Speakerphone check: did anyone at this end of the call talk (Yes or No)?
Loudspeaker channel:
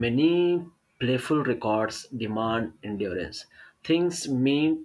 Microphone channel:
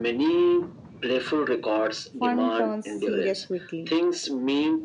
Yes